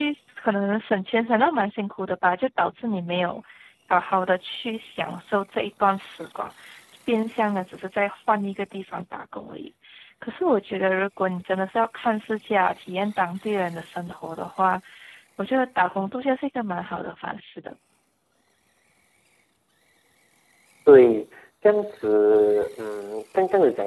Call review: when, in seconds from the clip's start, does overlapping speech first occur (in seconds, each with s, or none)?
none